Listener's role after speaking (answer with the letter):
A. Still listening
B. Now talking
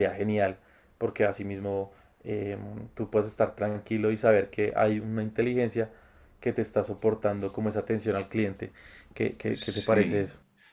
B